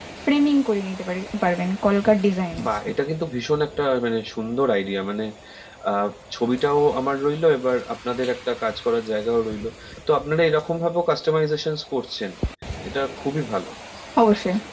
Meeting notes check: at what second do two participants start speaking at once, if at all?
none

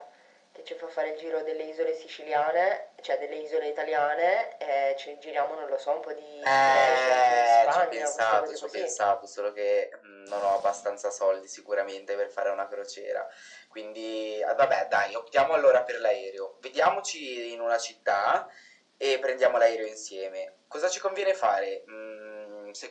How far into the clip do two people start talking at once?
6.4 s

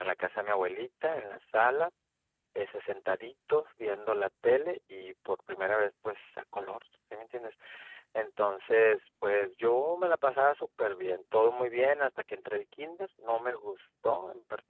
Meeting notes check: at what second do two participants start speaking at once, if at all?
none

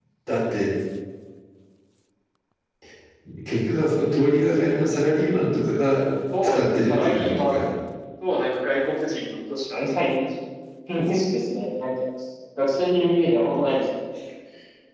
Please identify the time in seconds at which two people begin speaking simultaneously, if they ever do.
6.3 s

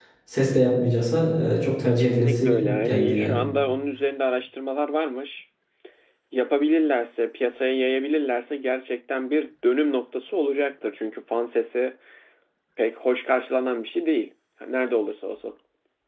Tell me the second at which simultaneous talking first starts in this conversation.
1.9 s

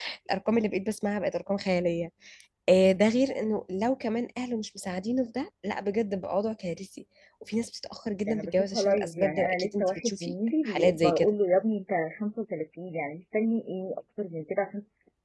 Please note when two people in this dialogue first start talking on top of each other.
8.3 s

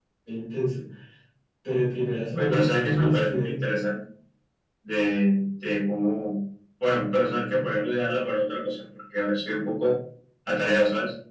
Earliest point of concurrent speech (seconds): 2.4 s

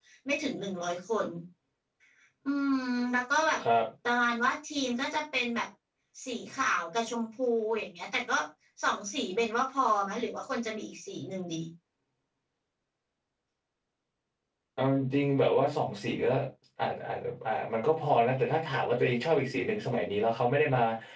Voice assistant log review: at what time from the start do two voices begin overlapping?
none

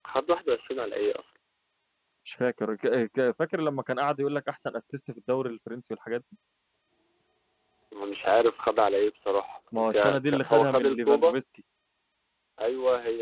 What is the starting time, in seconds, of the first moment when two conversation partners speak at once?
9.7 s

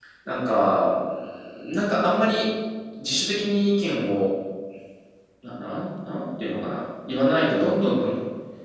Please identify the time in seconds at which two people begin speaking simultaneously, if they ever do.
none

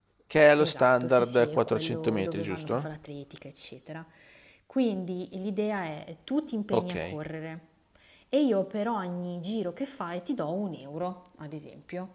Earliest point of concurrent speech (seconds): 0.6 s

